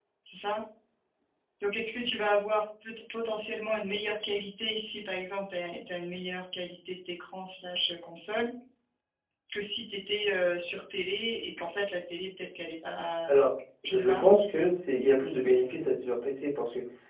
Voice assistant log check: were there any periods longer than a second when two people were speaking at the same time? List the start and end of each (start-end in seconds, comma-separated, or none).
none